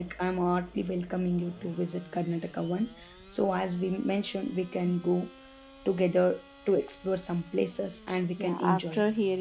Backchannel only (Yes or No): No